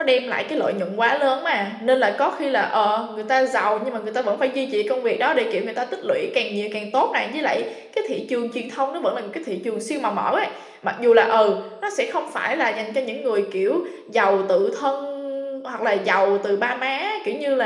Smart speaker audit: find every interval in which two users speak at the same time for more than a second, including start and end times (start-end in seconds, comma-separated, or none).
none